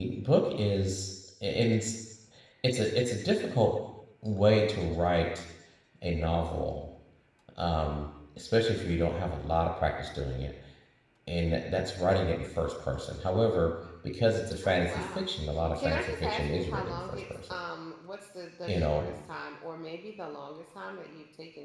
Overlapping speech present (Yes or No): Yes